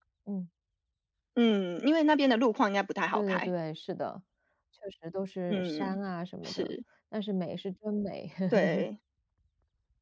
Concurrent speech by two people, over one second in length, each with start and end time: none

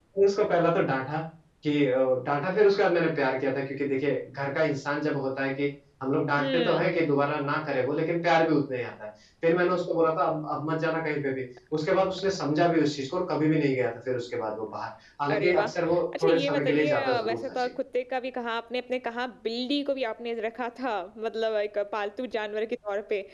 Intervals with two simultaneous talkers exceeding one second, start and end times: 16.2-17.7

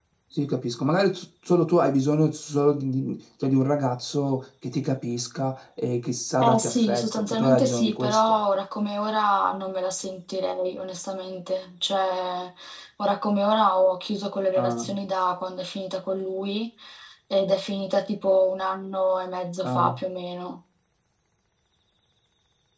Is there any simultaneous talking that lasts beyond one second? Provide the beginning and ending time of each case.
6.4-8.4

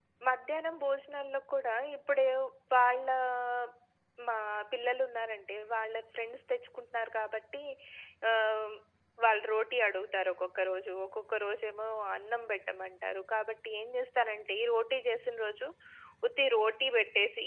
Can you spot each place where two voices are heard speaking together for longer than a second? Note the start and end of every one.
none

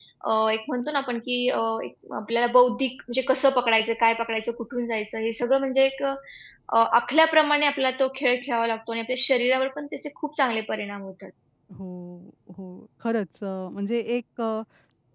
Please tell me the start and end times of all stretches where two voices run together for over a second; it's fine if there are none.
none

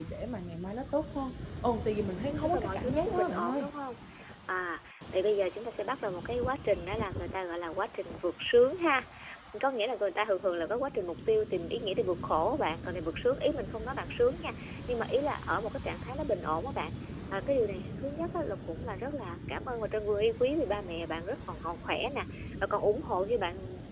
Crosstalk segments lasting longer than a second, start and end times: 2.4-3.7

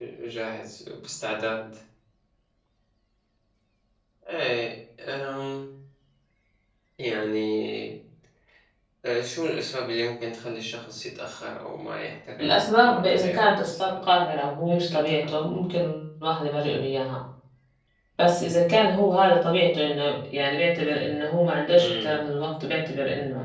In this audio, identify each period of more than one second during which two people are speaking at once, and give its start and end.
12.4-14.1

